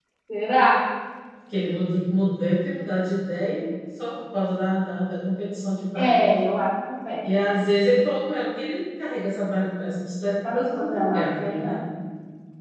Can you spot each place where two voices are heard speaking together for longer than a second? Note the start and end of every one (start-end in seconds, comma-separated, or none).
10.5-11.8